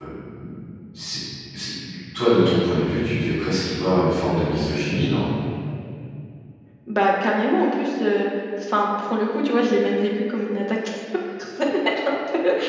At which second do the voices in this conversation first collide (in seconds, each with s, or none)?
none